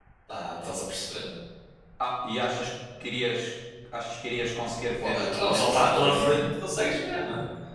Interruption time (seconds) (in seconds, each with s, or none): 5.0 s